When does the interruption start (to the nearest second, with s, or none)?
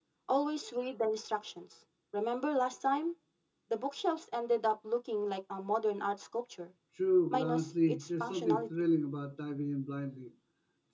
7 s